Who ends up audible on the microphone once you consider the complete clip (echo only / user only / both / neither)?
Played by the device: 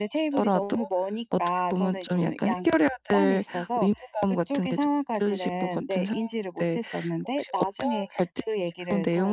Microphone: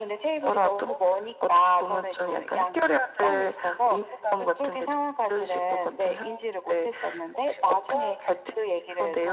echo only